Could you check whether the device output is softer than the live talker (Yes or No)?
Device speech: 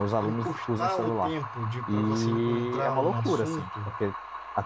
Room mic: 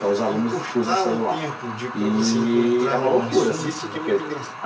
No